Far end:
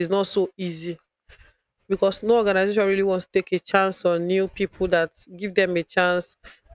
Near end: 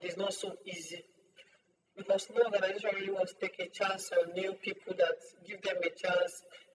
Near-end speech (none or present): none